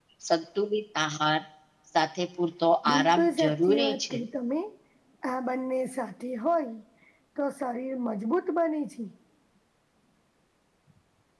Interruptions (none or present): present